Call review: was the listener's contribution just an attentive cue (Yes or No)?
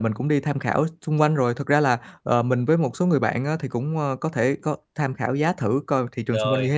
Yes